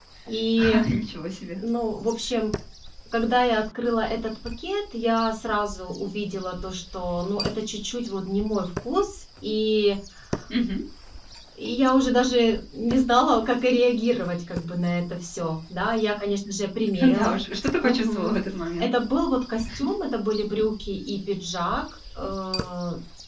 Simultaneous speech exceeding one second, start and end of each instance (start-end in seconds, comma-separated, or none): none